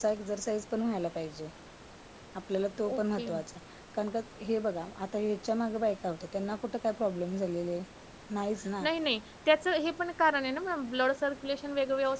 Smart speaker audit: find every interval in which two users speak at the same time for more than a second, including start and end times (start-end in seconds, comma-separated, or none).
none